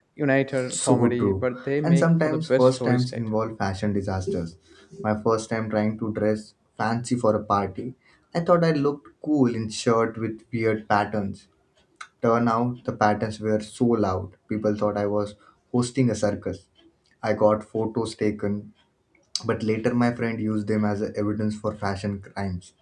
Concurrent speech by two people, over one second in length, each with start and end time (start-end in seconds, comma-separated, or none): 0.7-3.2